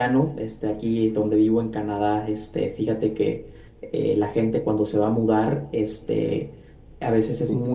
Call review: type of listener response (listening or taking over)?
listening